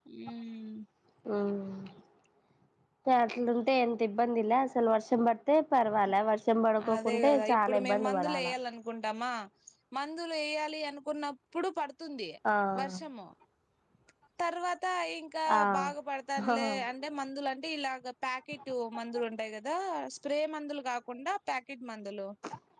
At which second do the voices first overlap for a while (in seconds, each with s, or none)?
7.0 s